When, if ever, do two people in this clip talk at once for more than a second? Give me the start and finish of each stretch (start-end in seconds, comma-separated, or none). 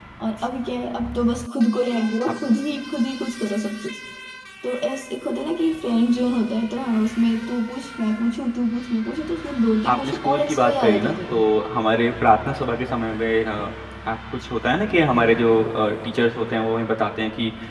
9.9-11.4